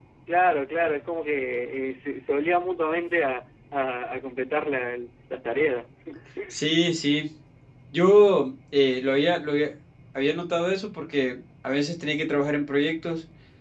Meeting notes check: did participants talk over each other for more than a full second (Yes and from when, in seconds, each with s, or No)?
No